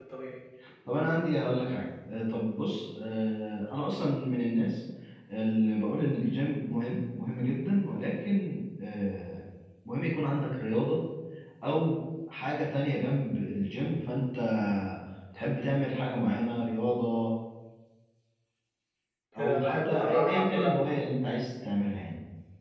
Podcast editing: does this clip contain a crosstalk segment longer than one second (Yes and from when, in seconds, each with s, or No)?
Yes, from 19.4 s